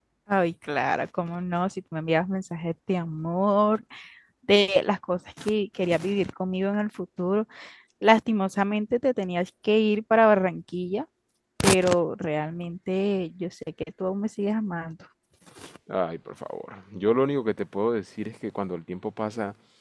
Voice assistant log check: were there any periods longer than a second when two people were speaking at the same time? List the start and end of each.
none

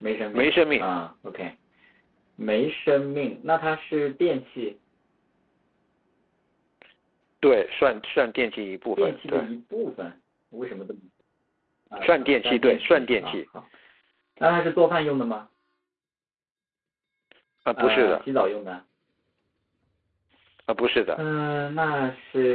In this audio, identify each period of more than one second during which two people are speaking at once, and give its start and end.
12.0-13.4

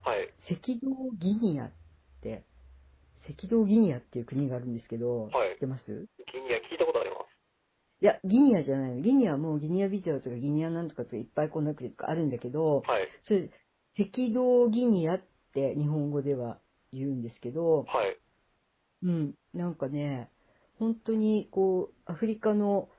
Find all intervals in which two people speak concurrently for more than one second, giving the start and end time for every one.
none

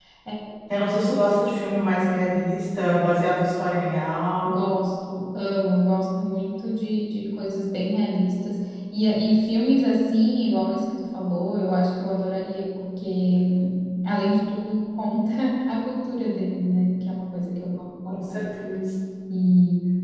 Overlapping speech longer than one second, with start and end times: none

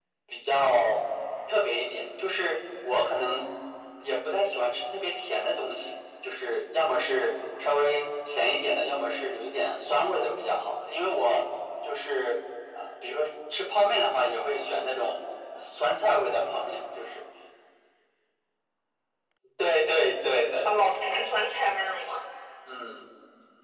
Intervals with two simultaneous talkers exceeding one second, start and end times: none

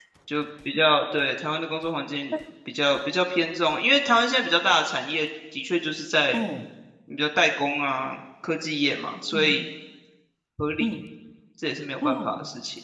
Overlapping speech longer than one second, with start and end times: none

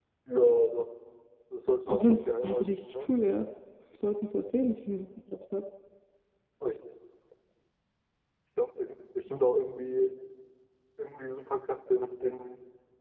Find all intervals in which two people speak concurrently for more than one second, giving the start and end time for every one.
1.9-3.1

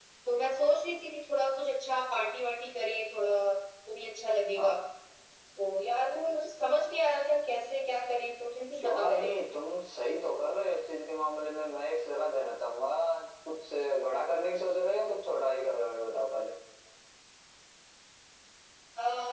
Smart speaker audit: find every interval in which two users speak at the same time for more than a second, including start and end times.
none

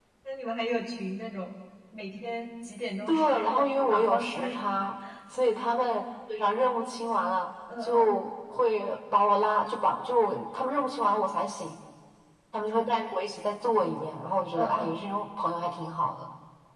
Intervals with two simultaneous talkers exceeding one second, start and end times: 3.1-4.6

